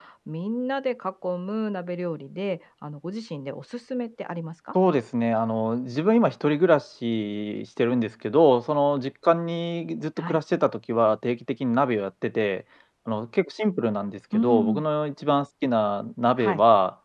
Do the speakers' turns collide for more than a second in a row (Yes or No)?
No